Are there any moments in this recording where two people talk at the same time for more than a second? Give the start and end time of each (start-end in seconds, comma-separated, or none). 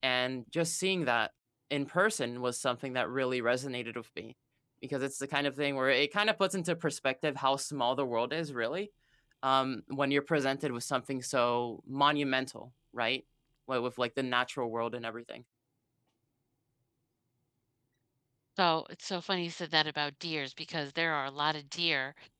none